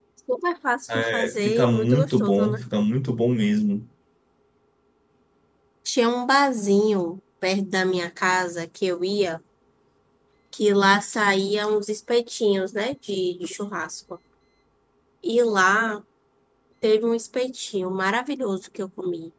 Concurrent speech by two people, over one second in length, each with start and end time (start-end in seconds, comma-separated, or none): 0.9-2.6